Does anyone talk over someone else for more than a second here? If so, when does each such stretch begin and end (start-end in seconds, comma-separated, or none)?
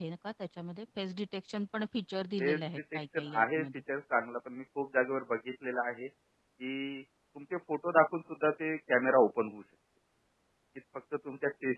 2.4-3.6